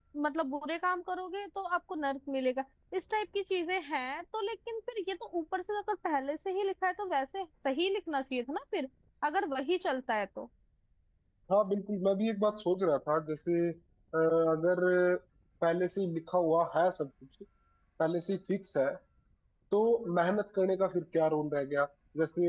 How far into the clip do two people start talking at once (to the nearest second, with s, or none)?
none